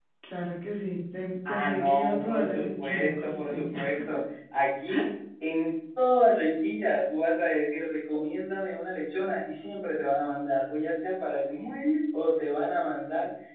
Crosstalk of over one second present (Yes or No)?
Yes